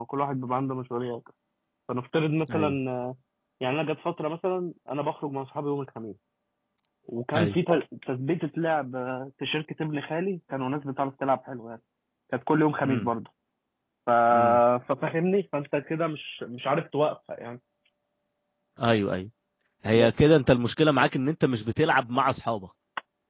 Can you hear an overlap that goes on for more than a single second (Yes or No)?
No